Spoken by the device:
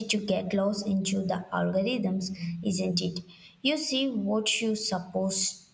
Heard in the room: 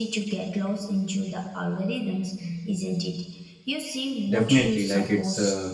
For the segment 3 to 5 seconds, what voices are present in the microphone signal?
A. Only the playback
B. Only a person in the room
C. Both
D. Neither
C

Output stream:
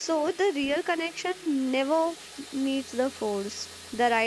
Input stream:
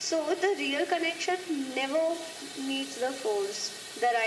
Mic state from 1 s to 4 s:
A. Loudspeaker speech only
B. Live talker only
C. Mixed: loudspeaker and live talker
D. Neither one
A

